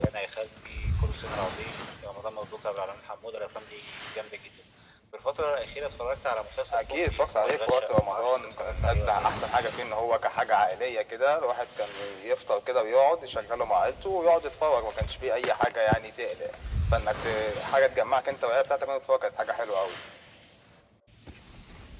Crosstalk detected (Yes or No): Yes